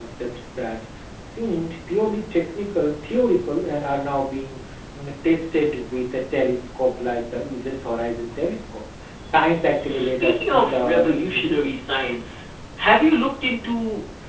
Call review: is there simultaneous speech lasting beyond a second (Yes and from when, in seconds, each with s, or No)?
Yes, from 9.9 s